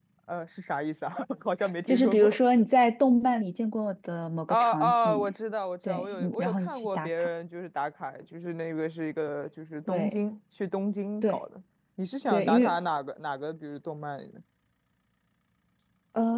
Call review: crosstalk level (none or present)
present